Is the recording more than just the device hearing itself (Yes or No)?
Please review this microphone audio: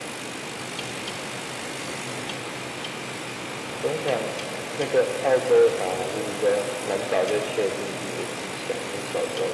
No